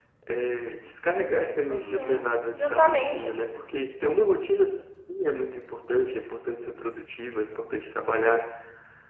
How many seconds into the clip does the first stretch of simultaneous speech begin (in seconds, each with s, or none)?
1.7 s